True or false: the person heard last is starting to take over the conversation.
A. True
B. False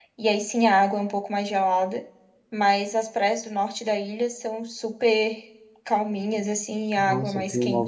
A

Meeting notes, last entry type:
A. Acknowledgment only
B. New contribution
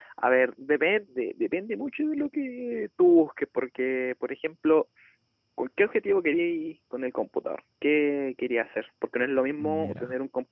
A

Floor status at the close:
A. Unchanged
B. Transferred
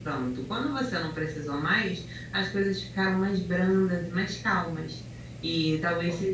A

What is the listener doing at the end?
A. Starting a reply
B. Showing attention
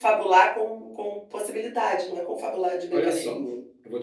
A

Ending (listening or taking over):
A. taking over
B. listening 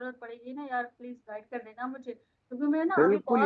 B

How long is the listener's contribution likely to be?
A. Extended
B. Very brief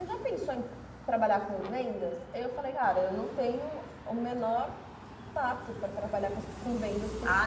A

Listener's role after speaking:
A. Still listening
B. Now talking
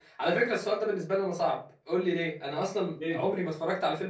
A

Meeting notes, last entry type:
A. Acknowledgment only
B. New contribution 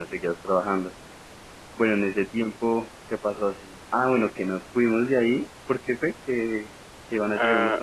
B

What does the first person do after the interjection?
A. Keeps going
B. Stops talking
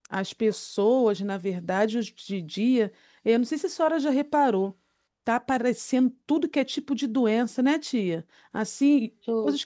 A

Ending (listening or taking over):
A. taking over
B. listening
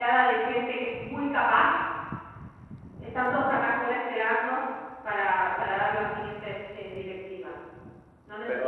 A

